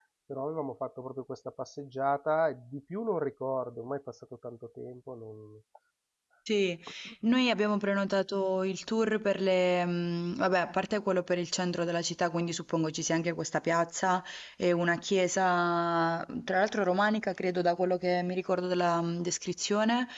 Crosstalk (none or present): none